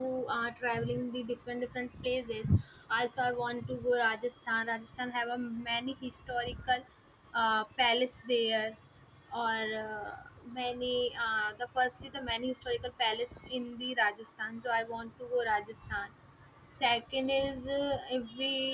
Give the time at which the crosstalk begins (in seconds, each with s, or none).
none